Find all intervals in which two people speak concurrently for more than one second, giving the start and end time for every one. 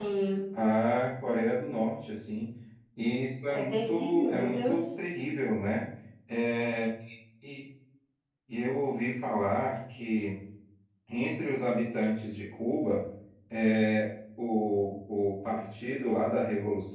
3.5-5.0

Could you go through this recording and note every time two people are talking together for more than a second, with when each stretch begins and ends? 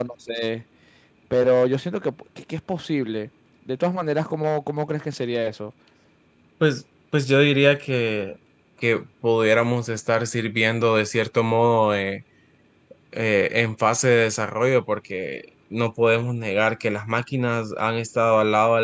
none

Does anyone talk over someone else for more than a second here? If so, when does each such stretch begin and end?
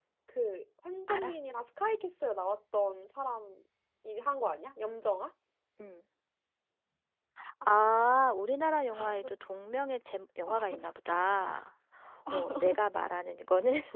none

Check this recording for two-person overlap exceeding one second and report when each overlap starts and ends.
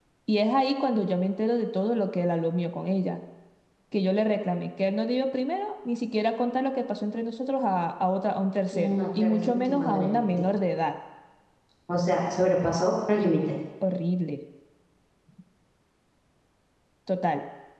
8.7-10.5

